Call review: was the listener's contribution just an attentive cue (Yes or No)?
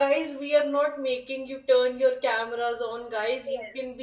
Yes